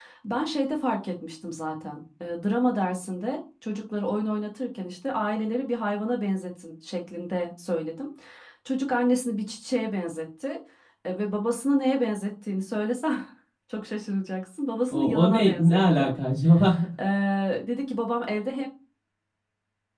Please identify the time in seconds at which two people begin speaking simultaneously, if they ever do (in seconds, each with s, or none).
14.9 s